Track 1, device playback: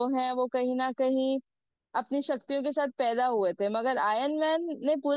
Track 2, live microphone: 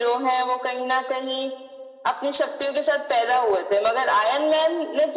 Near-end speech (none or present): none